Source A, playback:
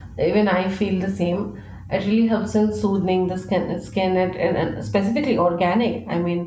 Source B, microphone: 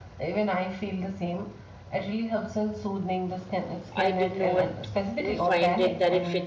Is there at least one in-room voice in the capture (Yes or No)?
Yes